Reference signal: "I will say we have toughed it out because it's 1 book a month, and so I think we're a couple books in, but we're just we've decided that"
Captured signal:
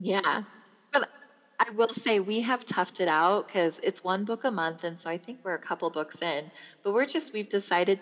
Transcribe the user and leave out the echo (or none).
none